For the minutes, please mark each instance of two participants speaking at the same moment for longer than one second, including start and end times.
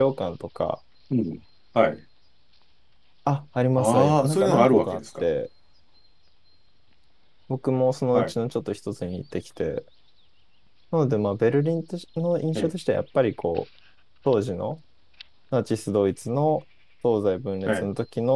3.8-5.2

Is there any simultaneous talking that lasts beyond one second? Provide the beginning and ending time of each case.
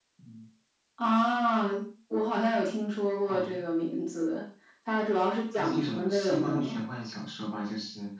5.5-6.8

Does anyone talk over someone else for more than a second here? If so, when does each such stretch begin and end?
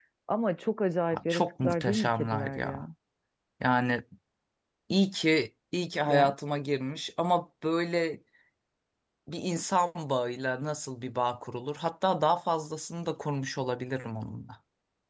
1.1-2.8

